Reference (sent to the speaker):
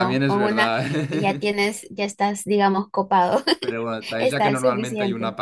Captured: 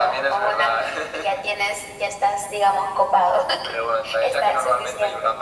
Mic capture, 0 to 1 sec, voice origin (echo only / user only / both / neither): echo only